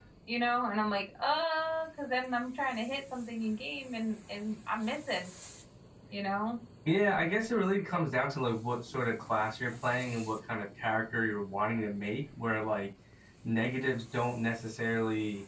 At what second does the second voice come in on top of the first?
none

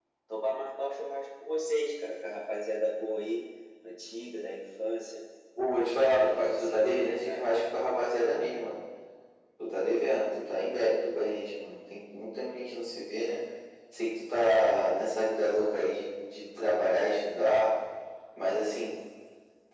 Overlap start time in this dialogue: 5.5 s

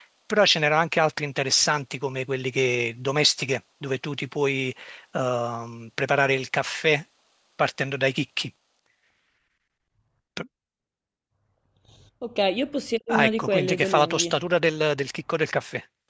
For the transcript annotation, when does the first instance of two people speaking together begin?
13.1 s

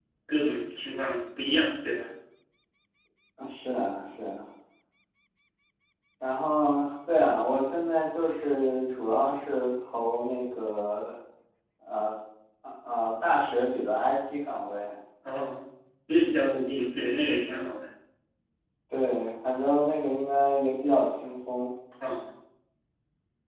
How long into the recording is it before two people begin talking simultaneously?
none

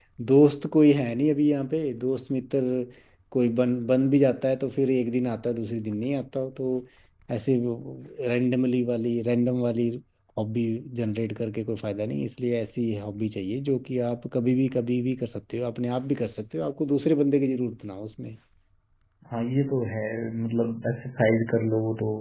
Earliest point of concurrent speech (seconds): none

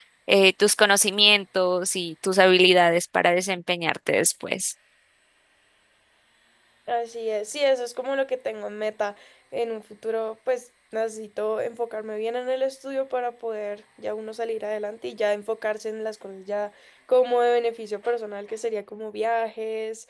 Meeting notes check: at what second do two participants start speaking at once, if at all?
none

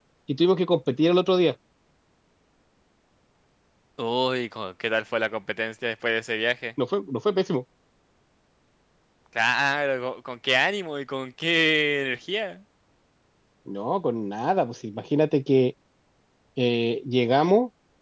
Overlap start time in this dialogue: none

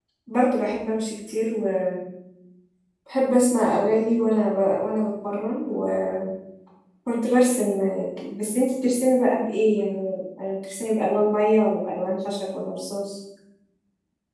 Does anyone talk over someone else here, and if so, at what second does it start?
none

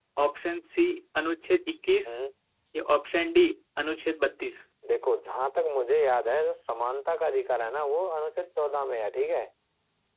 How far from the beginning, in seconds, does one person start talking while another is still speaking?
none

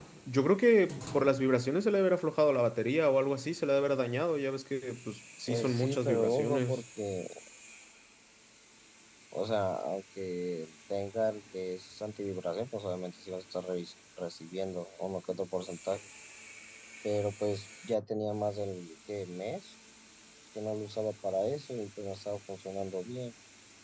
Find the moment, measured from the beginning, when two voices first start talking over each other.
5.5 s

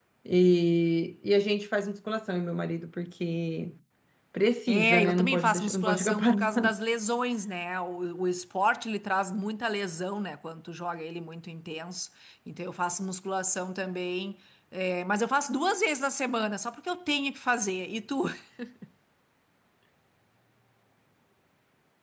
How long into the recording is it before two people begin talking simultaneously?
4.7 s

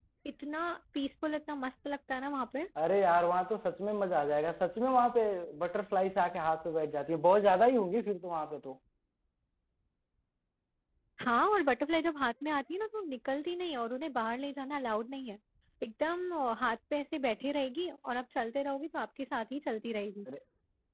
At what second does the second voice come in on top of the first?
none

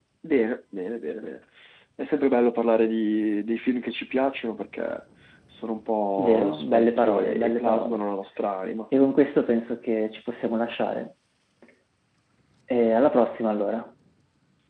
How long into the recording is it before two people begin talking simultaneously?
6.2 s

